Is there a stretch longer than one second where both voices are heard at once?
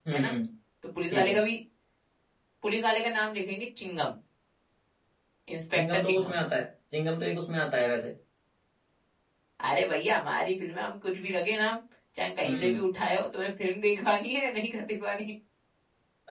No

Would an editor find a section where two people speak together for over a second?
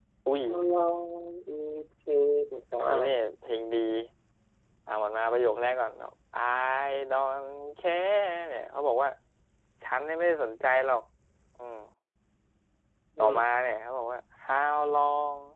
No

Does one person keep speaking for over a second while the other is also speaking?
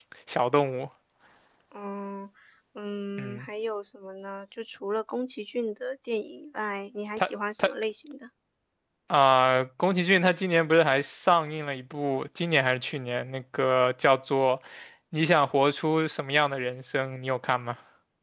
No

